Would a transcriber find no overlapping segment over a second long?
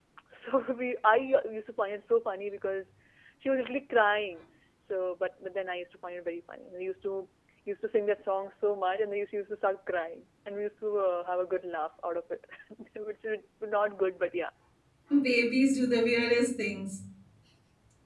Yes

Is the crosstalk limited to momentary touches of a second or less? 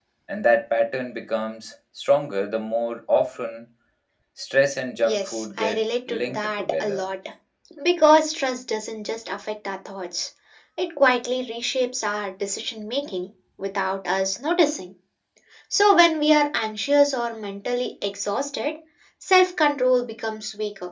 No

